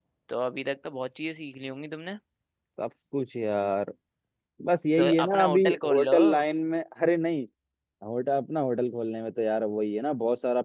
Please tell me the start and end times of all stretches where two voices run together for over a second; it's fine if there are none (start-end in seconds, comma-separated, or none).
5.0-6.2